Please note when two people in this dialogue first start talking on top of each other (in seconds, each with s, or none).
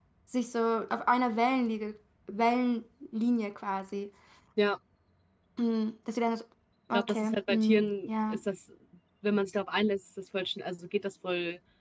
6.9 s